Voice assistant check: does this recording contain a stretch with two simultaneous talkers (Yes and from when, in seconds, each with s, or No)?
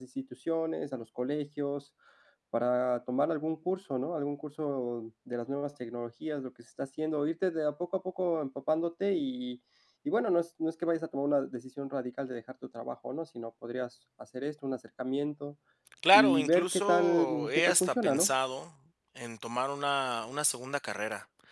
Yes, from 16.1 s